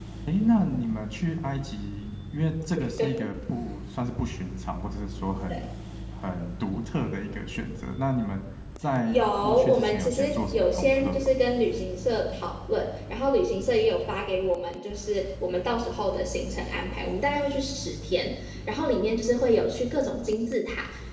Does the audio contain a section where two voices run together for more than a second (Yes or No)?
Yes